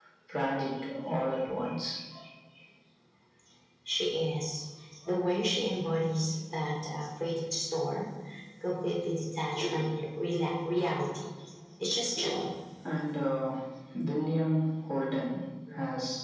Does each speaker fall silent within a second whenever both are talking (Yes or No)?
Yes